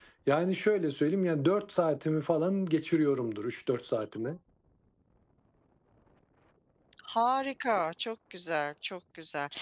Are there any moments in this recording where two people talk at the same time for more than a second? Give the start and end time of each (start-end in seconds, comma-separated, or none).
none